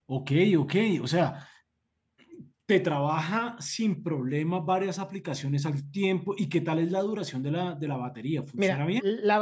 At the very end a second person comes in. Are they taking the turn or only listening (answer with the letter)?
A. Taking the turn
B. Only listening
A